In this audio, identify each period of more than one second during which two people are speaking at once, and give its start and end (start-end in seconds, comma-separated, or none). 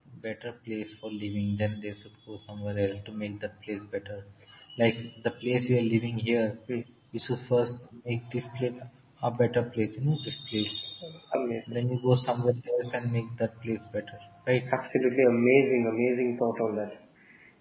none